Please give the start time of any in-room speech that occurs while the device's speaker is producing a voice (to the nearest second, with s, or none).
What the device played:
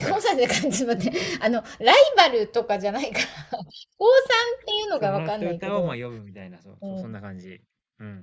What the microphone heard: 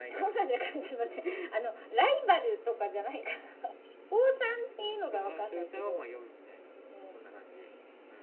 none